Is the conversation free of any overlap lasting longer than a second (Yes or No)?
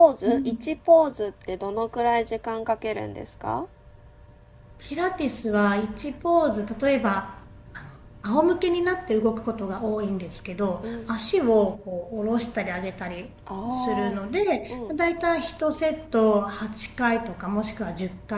Yes